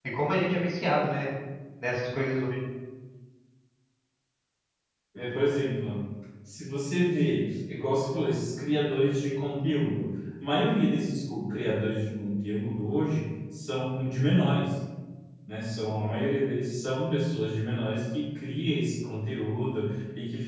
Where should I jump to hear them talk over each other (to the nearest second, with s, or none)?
none